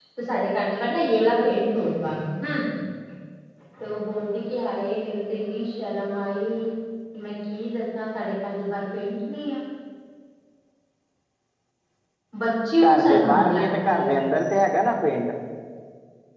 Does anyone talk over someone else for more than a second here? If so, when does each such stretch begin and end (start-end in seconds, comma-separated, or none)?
12.8-14.2